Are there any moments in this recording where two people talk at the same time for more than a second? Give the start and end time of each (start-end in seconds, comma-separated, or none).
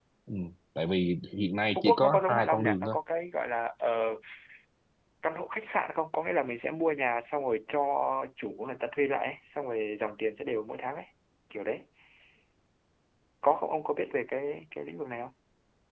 1.8-3.0